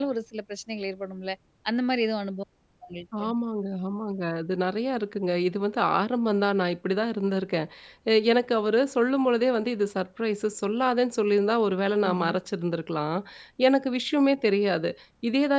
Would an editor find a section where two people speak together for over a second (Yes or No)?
No